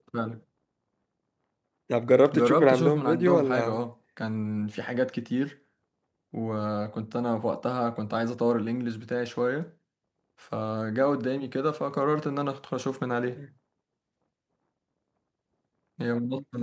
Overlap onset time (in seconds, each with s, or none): 2.3 s